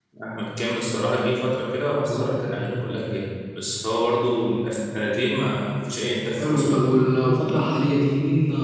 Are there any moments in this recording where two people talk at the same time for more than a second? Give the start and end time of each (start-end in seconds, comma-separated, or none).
none